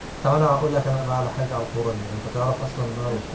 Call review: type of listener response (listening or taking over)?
listening